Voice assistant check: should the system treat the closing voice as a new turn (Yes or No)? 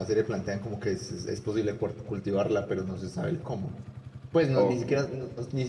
No